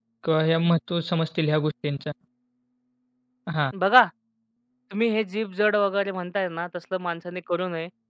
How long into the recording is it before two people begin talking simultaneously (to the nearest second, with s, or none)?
none